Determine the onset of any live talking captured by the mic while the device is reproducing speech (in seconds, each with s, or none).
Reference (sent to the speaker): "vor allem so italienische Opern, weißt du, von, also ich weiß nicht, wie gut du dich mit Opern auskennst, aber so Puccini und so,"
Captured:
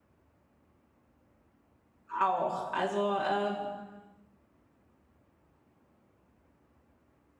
2.2 s